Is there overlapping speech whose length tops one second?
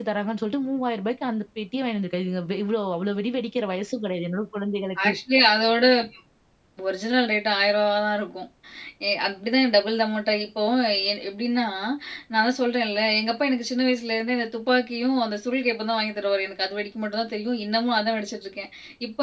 No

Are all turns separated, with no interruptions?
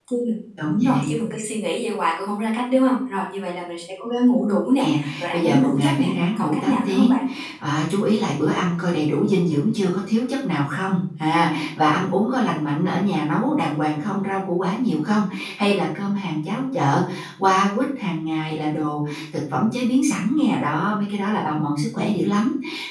No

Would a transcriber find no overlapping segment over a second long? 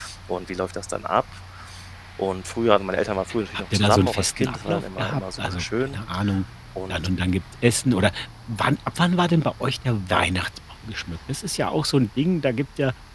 No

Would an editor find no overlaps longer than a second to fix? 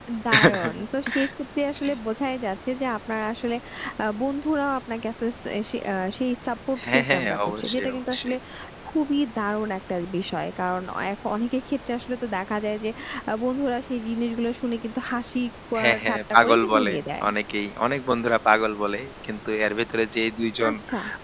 No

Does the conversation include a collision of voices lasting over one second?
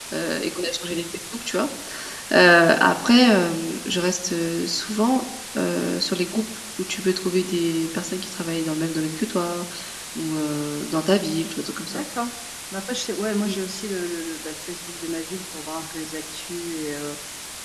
No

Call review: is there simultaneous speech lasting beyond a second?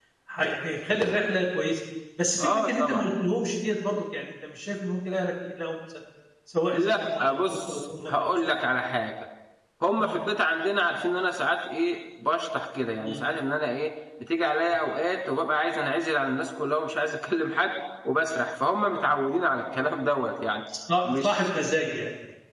Yes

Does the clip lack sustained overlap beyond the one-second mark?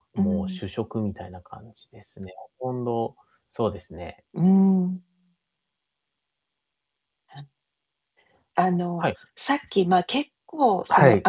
Yes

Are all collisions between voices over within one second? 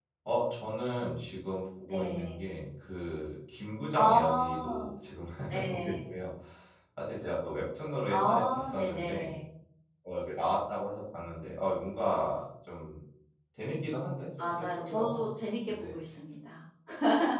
No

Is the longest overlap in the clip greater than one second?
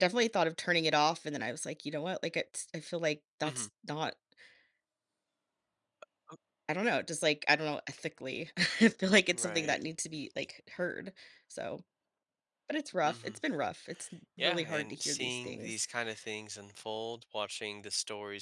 Yes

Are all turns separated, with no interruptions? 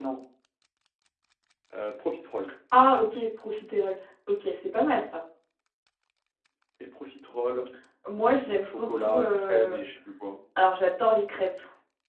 No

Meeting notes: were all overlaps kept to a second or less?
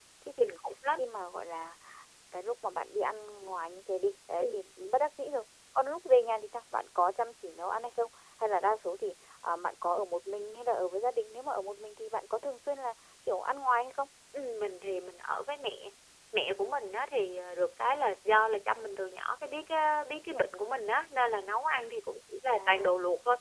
Yes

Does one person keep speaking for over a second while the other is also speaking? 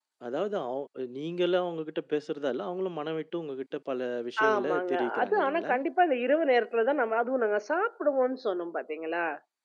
Yes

